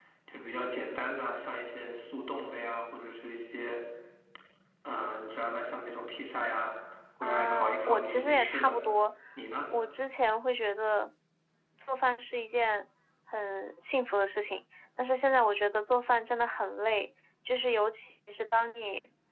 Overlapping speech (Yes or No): Yes